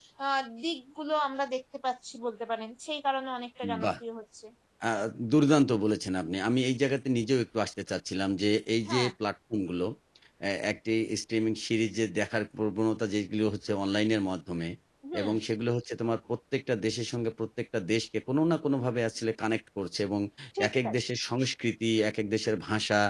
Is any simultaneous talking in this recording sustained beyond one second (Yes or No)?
No